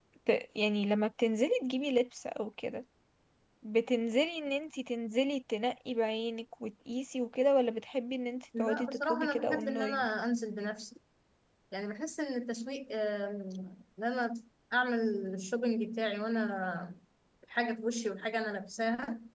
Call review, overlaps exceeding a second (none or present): present